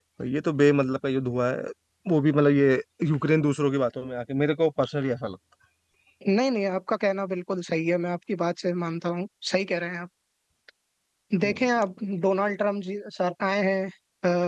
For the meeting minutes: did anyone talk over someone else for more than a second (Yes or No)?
No